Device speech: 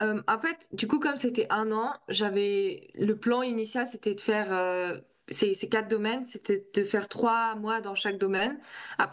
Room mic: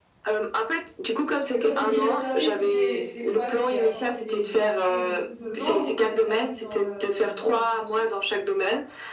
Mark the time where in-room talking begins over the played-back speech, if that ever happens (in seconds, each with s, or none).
1.5 s